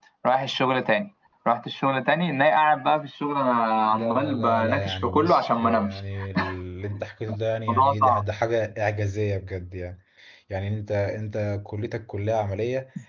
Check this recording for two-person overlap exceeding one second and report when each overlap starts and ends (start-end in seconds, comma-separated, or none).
3.9-6.0